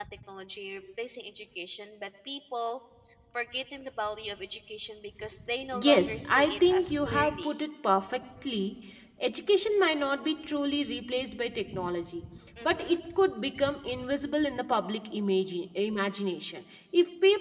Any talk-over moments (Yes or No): Yes